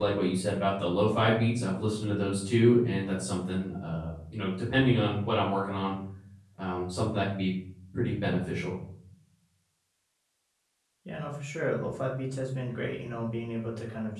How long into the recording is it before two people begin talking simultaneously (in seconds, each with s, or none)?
none